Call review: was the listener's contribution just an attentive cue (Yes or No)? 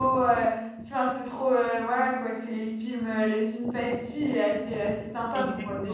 No